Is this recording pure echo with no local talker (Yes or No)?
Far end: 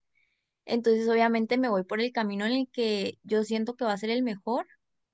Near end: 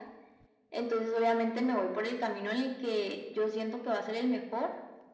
Yes